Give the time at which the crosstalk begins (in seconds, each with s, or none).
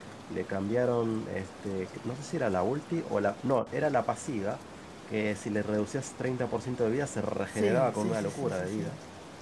7.4 s